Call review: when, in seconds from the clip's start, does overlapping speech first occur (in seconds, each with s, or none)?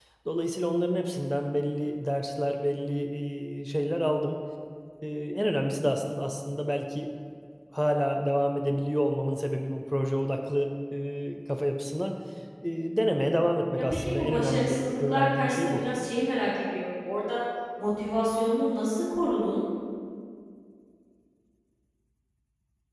13.8 s